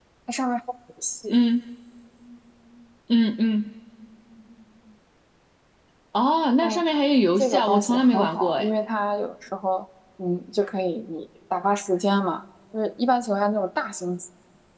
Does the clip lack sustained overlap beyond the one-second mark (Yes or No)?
No